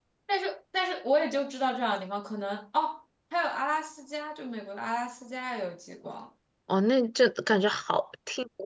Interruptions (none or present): none